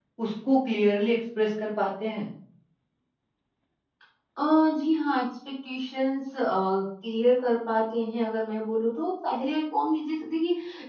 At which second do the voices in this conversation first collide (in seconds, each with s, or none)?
none